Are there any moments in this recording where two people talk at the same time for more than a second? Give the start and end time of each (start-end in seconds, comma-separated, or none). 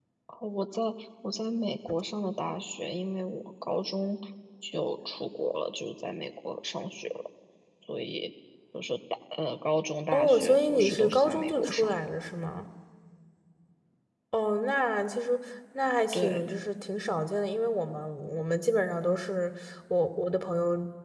10.1-12.1